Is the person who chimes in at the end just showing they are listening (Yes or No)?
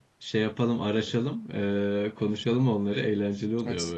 No